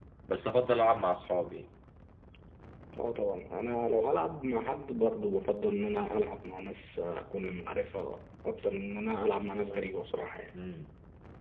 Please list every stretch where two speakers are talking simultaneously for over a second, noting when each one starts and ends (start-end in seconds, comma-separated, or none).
none